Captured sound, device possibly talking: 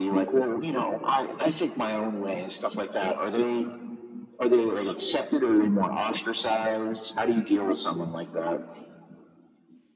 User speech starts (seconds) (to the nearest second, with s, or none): none